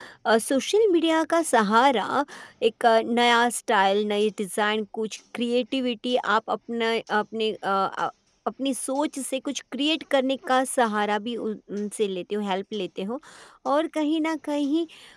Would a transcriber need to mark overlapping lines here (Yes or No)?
No